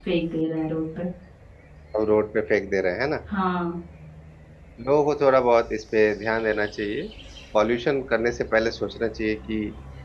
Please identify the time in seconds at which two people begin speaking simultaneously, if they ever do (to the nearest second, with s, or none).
none